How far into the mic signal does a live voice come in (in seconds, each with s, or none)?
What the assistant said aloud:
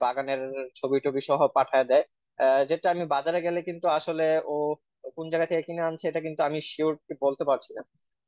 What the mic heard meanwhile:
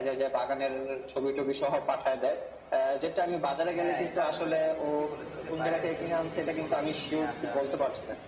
3.7 s